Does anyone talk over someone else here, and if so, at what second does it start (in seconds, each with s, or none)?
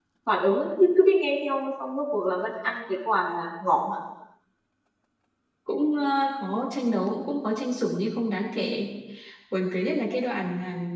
none